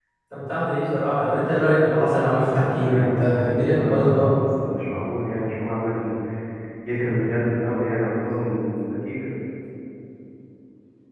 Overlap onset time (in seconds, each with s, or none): 2.8 s